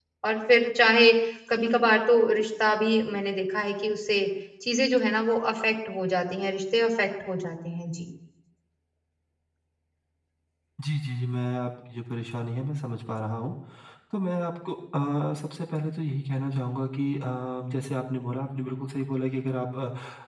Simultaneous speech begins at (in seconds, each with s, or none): none